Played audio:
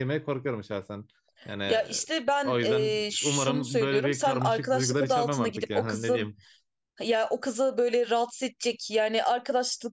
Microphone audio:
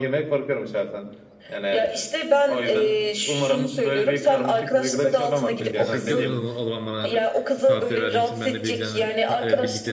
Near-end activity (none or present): present